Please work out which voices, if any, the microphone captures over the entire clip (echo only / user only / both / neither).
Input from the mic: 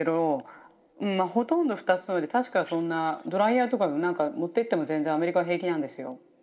echo only